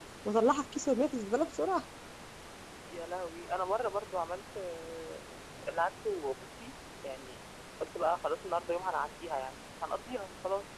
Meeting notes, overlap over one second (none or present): none